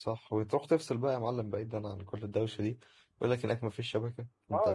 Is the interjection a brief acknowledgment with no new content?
No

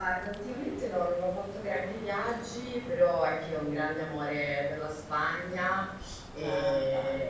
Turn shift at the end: No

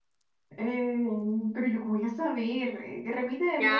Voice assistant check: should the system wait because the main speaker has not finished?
No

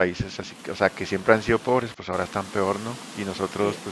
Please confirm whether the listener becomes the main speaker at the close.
No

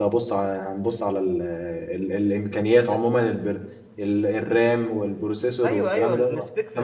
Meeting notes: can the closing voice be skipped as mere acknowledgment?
No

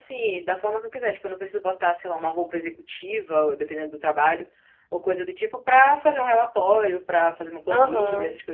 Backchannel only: Yes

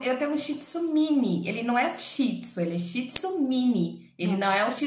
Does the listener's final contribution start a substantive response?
No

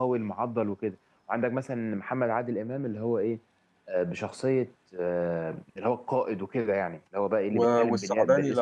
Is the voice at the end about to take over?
Yes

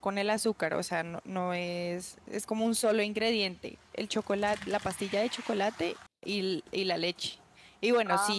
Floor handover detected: No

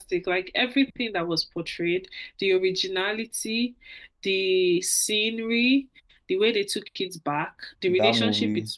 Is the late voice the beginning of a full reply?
No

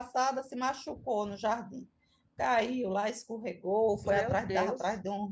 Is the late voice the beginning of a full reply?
No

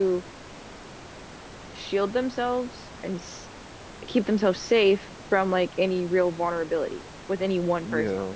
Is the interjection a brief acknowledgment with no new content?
No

